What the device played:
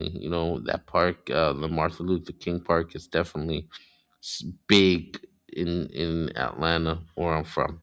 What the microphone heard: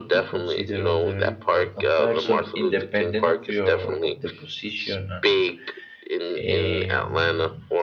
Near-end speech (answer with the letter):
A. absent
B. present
B